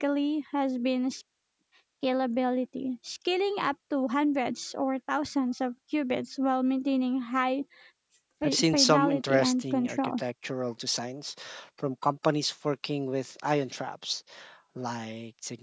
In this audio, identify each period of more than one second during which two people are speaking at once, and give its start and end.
8.4-10.2

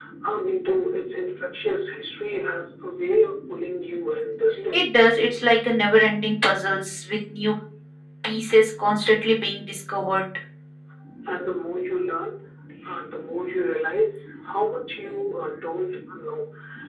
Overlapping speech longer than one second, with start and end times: none

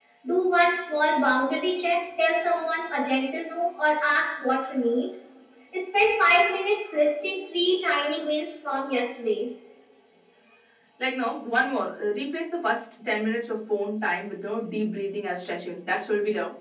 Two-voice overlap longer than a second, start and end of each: none

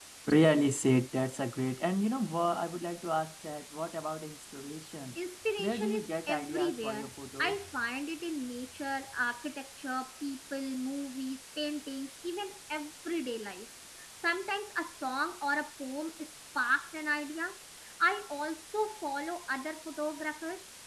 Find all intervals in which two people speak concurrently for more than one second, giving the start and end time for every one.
5.6-7.6

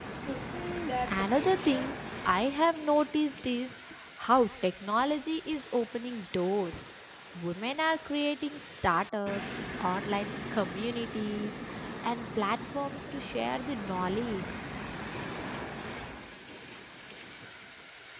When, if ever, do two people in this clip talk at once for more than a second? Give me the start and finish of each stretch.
0.5-1.9

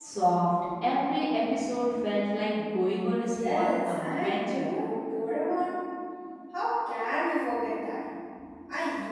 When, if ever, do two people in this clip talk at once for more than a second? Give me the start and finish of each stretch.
3.2-4.7

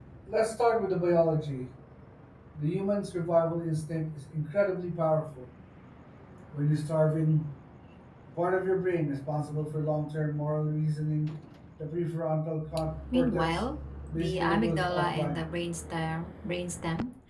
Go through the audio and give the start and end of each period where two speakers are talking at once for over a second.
14.2-15.4

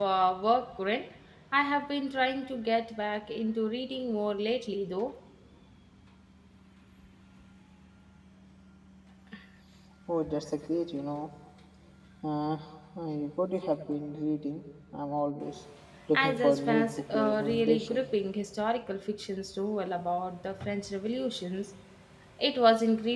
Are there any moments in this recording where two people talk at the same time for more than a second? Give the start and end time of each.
16.1-18.1

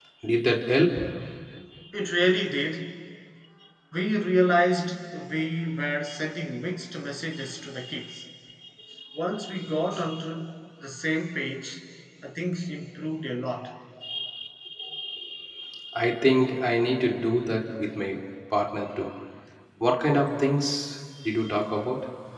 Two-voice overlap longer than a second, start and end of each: none

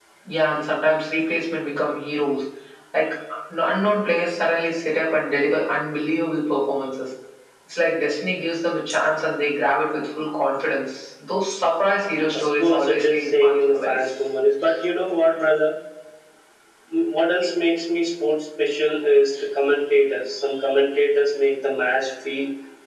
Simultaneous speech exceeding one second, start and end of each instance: 12.3-14.1

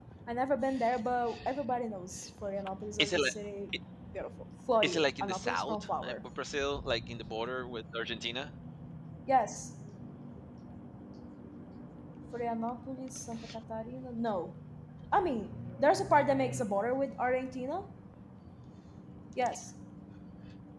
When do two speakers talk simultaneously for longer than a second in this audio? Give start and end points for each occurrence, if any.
4.8-6.1

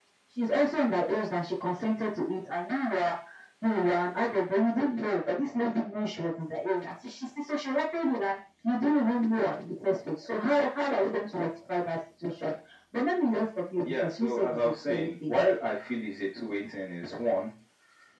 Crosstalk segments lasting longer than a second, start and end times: 13.8-15.3

